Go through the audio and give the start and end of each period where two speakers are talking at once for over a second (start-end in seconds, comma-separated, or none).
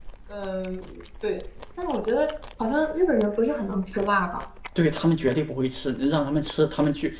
none